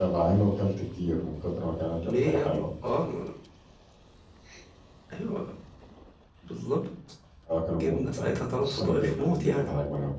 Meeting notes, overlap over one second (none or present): present